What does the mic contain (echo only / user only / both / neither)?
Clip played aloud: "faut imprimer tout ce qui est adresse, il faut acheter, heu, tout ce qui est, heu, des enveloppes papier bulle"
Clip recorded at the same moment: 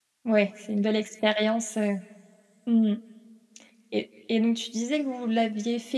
user only